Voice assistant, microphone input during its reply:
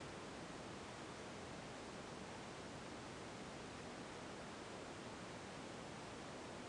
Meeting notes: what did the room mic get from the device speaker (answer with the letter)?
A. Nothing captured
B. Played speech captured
A